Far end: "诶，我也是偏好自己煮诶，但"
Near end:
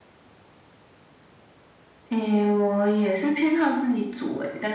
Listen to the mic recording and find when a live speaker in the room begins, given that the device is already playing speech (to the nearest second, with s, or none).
none